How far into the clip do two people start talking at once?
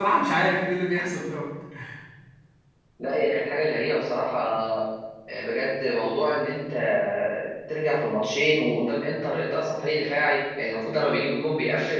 none

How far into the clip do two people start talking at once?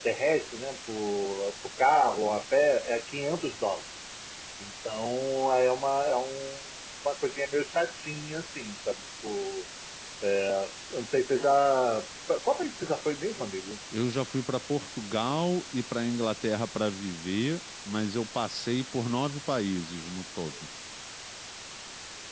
none

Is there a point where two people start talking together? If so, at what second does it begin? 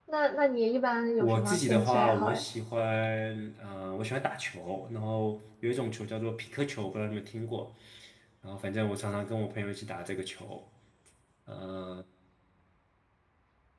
1 s

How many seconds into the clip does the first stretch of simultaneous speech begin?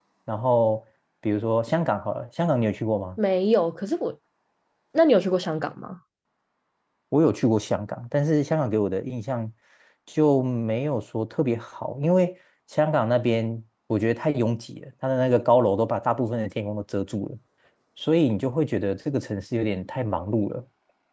none

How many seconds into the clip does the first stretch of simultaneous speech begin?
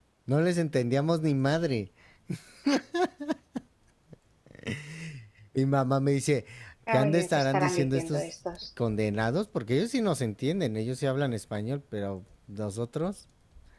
7 s

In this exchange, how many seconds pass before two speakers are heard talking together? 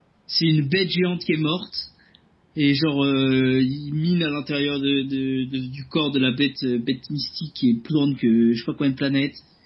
none

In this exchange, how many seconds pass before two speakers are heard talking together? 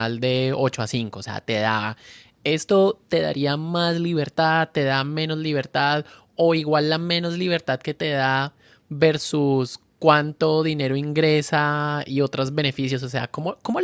none

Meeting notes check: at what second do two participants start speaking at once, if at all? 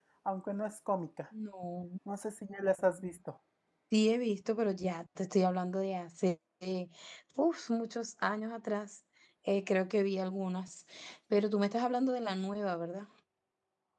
none

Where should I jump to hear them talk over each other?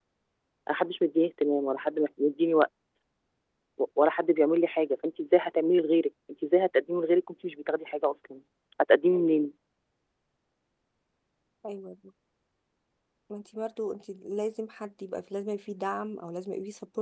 none

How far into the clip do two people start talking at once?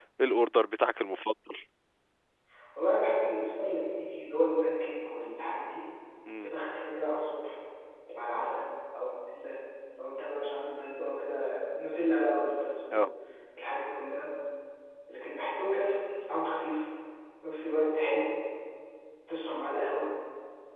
none

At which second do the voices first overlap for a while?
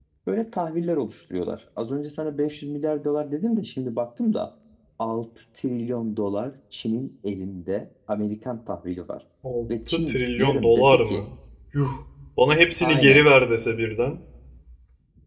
10 s

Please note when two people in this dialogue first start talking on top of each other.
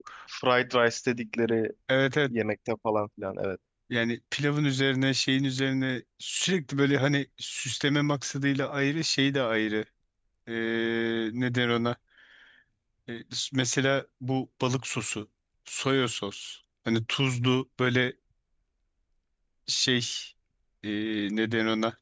none

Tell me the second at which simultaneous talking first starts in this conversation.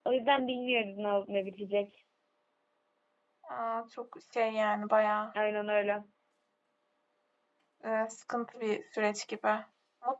none

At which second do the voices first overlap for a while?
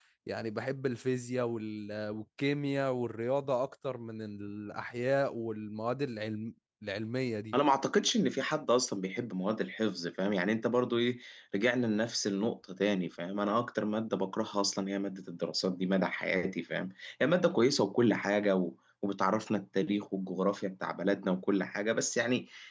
none

